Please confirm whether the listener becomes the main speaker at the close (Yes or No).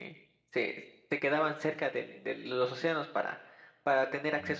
No